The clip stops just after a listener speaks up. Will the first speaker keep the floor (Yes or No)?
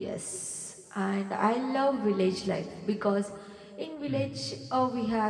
Yes